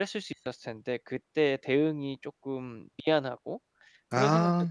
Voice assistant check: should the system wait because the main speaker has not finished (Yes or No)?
Yes